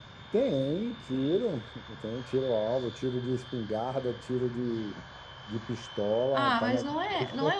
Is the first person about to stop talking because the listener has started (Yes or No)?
Yes